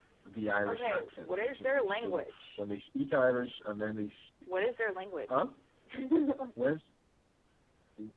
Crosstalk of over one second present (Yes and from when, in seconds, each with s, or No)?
Yes, from 0.7 s